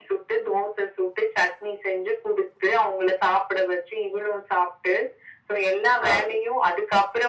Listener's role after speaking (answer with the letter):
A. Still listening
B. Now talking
A